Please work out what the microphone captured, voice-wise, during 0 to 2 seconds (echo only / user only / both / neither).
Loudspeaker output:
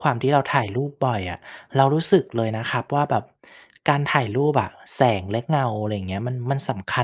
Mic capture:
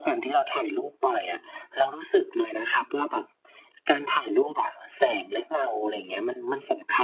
echo only